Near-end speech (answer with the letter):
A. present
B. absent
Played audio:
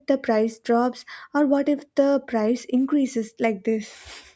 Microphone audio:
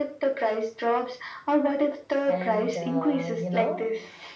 A